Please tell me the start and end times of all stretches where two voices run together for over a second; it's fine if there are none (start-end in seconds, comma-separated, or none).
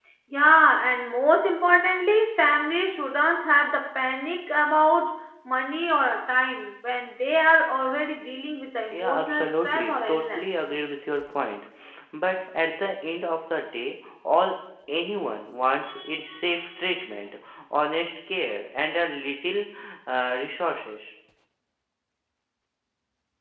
8.9-10.4